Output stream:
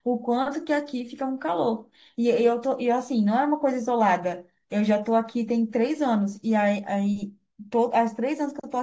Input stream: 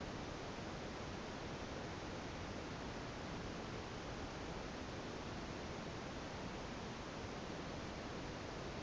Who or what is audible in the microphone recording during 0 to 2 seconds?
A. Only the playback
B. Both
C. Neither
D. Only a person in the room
C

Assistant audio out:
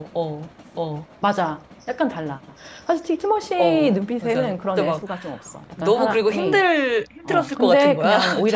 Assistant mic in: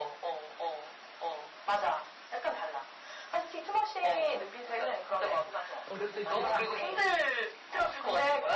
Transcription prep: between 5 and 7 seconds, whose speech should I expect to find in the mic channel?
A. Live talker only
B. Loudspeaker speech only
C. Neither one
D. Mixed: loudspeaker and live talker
D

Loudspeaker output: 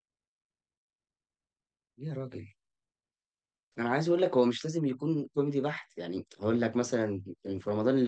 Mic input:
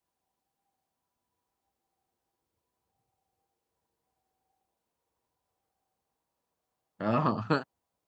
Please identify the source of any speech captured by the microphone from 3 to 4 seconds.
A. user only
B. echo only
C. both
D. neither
D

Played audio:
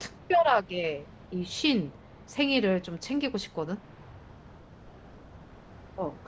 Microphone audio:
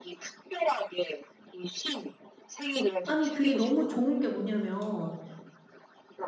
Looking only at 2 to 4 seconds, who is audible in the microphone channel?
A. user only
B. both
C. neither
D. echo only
B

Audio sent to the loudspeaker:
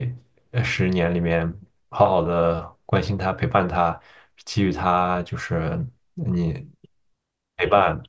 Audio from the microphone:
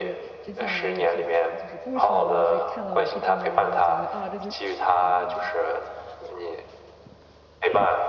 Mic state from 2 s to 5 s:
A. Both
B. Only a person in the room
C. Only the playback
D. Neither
A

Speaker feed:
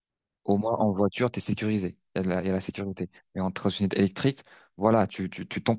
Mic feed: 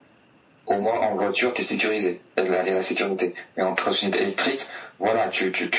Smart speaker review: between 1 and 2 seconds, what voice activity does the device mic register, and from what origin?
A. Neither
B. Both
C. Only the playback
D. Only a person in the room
C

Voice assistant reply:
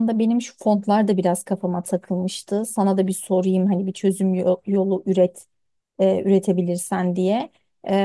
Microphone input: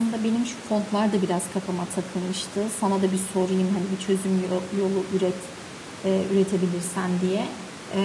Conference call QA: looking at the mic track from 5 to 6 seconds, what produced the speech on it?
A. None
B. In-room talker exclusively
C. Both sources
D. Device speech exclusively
D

